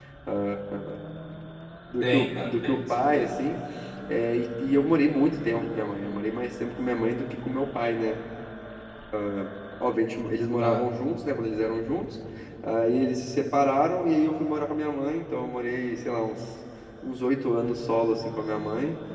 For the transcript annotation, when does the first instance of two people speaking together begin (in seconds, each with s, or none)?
2.0 s